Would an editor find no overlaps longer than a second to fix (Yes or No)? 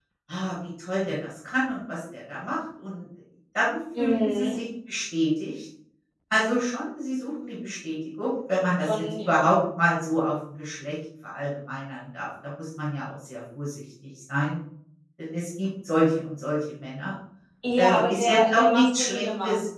No